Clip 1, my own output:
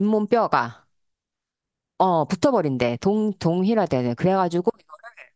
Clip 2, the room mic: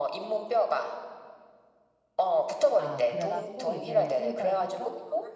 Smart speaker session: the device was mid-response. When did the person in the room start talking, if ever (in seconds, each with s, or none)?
2.8 s